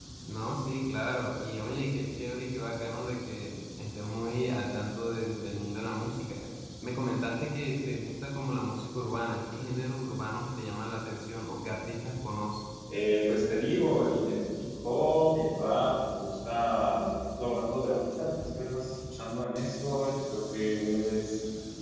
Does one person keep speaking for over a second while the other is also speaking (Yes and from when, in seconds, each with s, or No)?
No